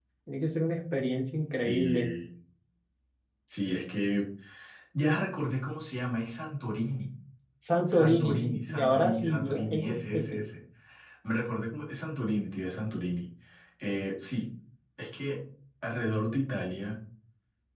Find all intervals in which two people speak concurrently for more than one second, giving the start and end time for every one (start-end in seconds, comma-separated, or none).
7.9-10.4